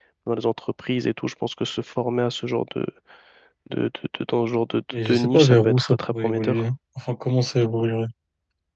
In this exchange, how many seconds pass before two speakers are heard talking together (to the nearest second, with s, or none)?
5 s